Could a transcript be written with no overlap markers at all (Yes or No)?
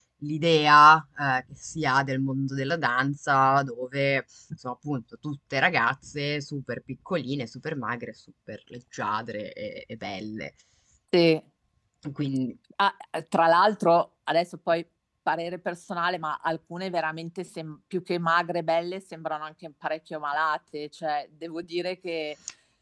Yes